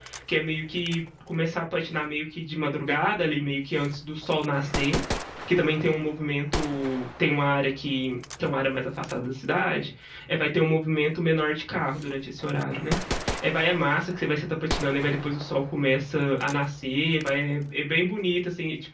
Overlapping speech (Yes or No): No